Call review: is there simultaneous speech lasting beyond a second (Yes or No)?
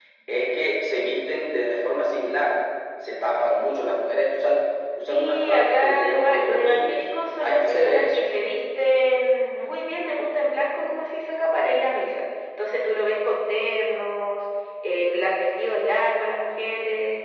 Yes